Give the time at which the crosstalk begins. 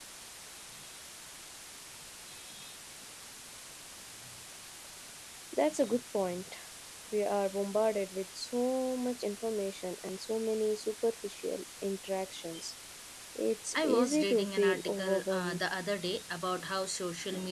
13.7 s

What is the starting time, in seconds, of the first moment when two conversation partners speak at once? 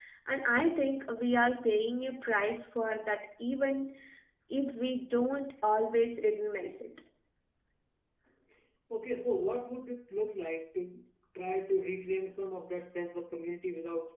none

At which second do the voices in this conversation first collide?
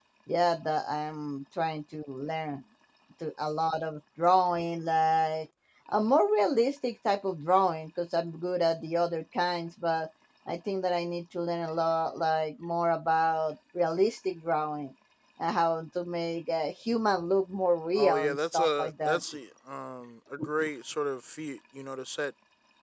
18.0 s

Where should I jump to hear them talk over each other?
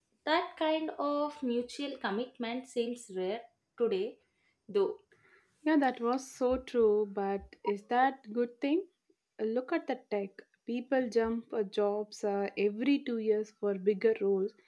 none

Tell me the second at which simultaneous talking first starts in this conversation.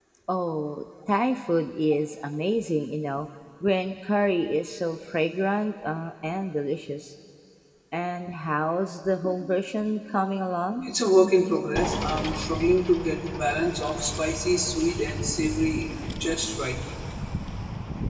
none

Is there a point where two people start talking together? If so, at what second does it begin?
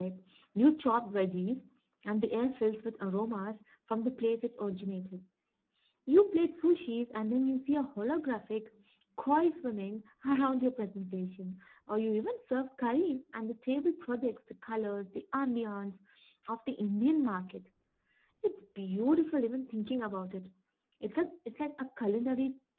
none

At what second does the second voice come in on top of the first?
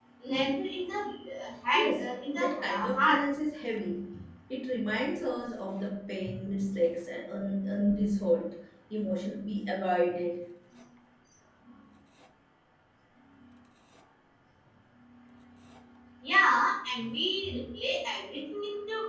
1.7 s

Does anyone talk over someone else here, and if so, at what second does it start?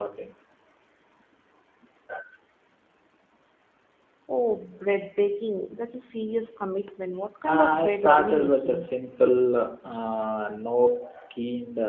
7.5 s

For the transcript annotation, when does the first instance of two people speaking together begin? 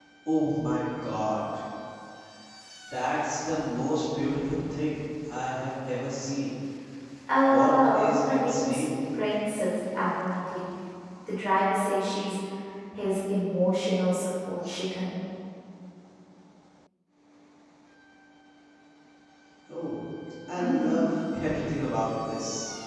7.5 s

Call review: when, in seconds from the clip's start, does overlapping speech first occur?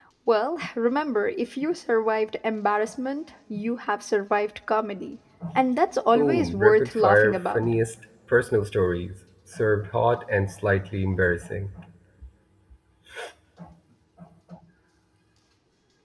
6.1 s

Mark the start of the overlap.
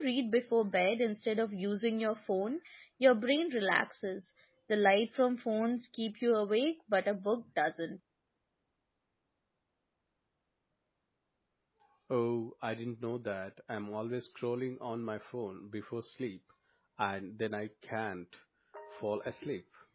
none

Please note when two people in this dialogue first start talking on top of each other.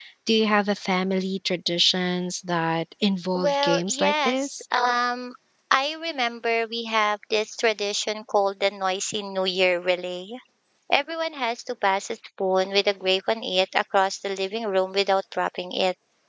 3.4 s

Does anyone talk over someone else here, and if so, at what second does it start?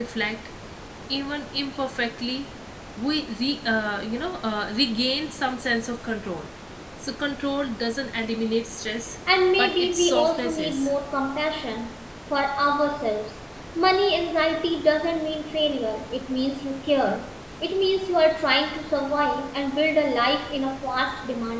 9.6 s

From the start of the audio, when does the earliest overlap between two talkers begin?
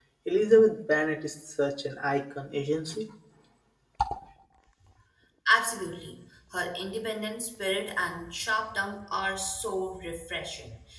none

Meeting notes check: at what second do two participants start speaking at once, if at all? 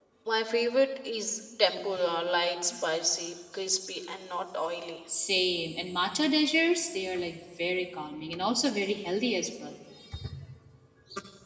none

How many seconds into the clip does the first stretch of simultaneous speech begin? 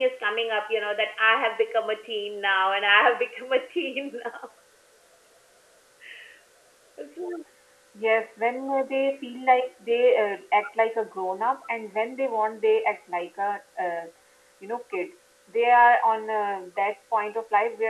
none

